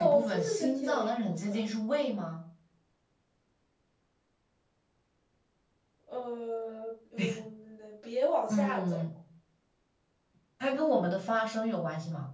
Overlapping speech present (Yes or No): Yes